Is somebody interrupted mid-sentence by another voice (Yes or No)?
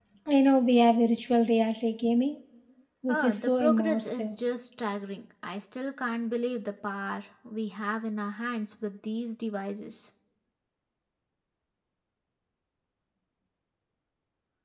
Yes